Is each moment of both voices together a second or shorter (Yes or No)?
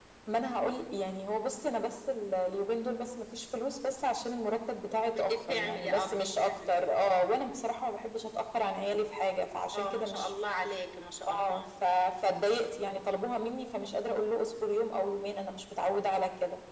No